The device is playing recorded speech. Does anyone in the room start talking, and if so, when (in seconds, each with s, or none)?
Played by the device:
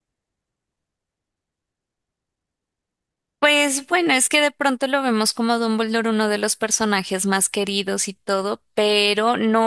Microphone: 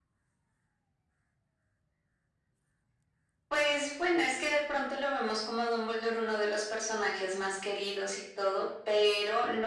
none